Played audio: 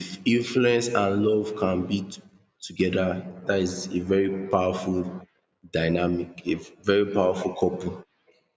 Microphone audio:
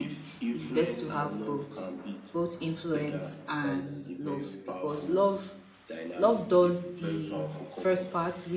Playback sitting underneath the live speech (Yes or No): Yes